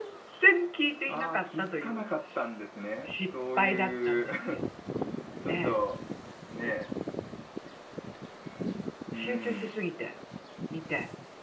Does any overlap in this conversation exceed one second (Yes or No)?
Yes